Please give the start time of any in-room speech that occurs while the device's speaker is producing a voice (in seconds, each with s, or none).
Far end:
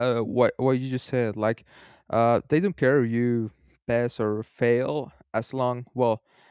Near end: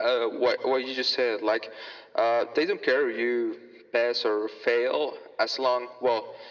none